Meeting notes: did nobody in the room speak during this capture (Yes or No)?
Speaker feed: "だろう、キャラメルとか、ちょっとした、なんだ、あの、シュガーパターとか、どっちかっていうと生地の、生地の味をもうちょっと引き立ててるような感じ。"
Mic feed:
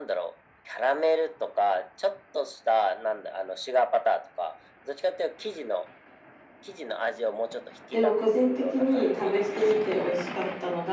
No